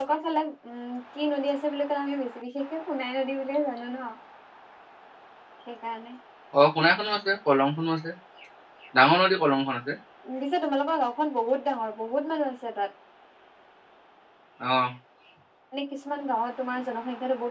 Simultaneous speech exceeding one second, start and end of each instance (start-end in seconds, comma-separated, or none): none